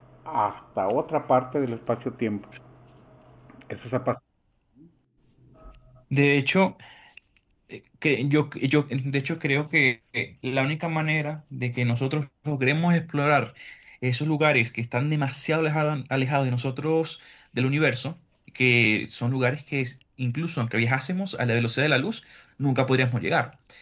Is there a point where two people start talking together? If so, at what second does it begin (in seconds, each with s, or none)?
none